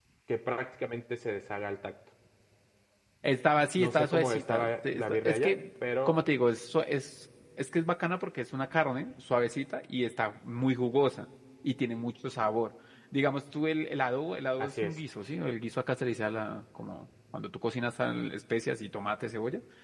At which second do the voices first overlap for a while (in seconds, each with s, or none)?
3.8 s